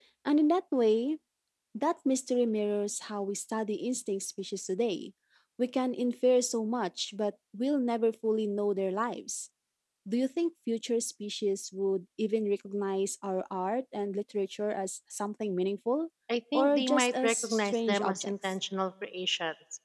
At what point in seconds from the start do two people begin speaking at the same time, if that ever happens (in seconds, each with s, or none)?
16.5 s